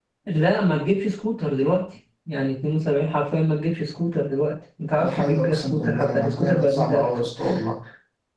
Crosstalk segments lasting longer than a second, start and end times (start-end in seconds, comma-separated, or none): 5.0-7.1